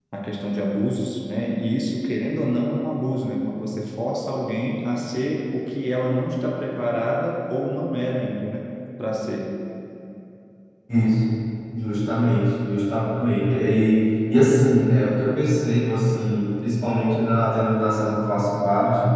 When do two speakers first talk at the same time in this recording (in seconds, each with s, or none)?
none